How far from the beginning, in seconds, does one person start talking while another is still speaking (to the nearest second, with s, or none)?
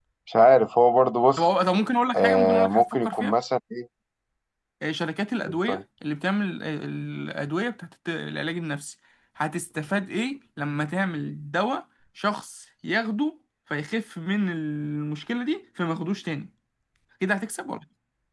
2 s